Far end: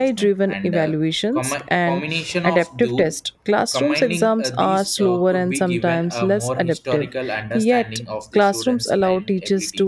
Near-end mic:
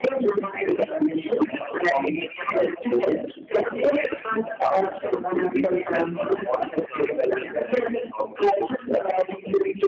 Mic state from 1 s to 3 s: echo only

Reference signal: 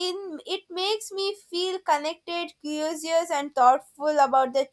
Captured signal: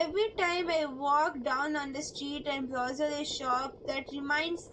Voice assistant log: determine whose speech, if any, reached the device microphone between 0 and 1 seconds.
user only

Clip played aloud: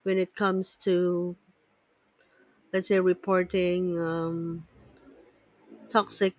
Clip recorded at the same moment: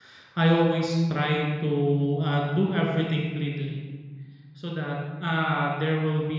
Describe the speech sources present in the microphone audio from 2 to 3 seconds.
user only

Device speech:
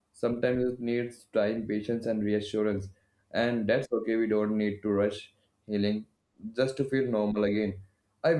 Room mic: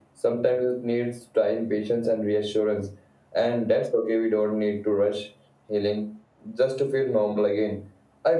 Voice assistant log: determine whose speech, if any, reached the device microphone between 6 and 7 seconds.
echo only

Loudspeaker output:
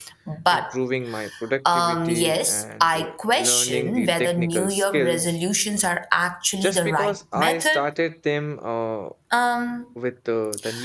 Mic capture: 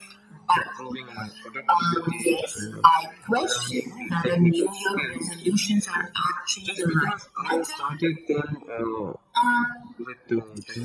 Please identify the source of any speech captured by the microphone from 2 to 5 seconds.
echo only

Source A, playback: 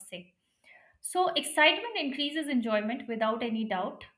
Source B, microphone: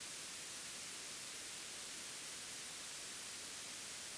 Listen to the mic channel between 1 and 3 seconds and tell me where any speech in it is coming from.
neither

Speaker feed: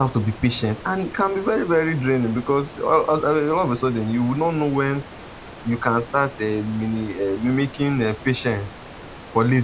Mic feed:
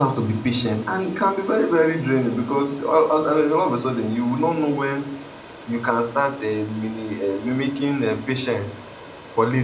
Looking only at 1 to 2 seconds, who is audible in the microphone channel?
echo only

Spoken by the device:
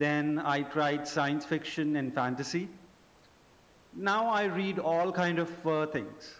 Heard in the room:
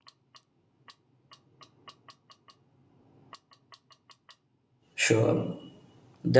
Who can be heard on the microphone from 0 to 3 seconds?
neither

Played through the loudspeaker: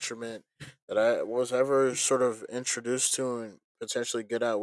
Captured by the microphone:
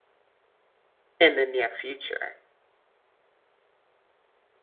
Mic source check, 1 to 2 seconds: user only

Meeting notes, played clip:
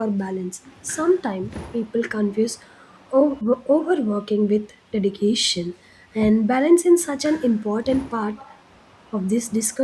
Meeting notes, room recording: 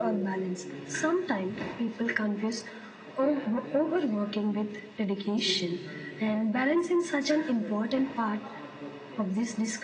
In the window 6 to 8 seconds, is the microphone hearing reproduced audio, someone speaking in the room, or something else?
both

